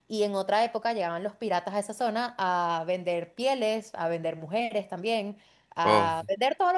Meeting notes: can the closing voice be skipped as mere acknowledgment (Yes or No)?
Yes